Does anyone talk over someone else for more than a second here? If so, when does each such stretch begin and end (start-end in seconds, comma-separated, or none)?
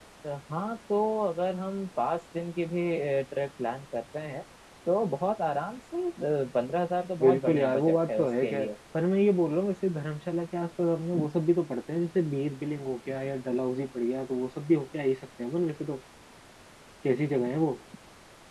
7.2-8.7